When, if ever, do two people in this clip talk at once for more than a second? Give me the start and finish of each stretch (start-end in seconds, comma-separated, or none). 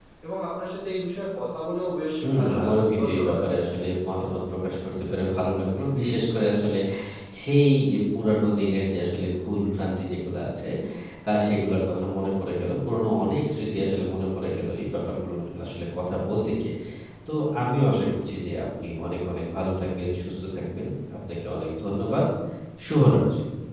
2.2-3.4